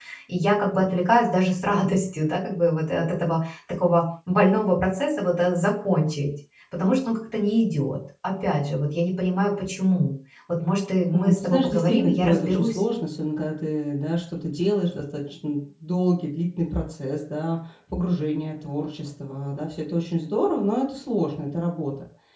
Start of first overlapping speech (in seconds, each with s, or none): 11.1 s